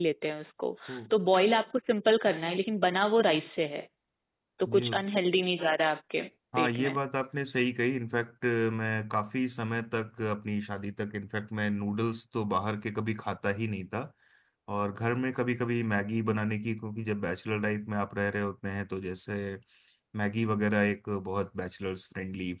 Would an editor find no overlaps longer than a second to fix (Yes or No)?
Yes